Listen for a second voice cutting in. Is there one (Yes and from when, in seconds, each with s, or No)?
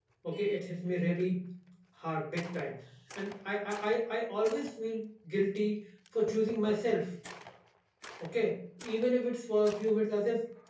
No